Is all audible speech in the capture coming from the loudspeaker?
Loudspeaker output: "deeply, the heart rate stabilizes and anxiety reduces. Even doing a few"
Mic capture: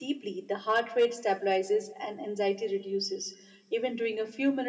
Yes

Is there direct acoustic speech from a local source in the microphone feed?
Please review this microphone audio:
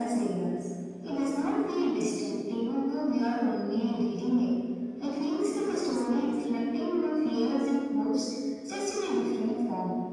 Yes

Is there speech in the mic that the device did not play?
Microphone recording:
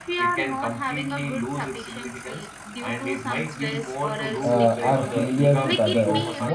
Yes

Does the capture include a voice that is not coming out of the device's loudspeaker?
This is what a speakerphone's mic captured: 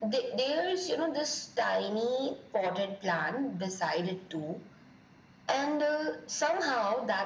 No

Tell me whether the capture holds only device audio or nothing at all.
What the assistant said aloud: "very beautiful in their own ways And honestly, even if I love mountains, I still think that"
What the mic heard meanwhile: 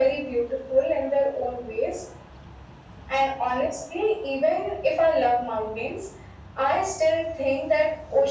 Yes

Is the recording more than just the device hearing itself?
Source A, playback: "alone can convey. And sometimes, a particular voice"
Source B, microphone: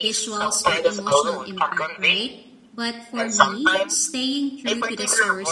Yes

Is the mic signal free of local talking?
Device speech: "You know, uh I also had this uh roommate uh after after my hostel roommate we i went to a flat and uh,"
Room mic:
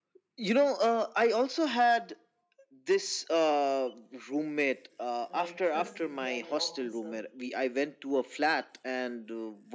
No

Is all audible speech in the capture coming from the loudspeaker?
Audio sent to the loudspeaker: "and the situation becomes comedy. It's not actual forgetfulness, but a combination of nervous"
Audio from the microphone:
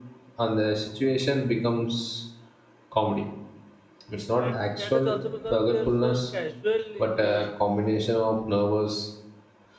No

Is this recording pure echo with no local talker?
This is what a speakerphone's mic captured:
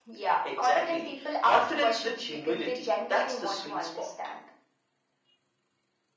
Yes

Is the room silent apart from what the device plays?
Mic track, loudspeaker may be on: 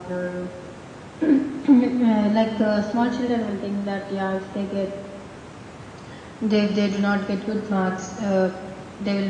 Yes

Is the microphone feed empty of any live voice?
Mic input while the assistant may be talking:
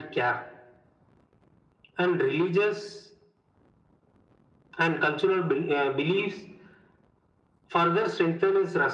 Yes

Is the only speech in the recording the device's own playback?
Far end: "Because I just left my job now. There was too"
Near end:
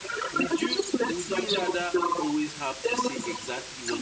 No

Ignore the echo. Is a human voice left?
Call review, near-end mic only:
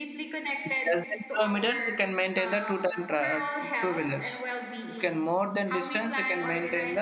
Yes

